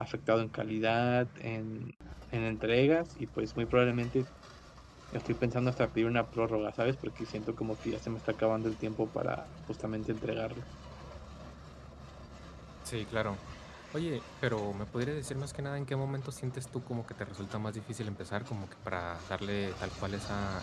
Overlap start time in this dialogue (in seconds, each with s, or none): none